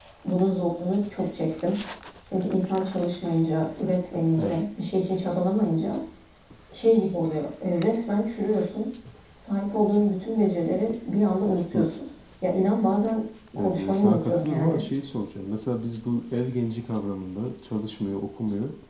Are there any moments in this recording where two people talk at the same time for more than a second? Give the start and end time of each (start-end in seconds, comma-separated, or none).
13.6-14.8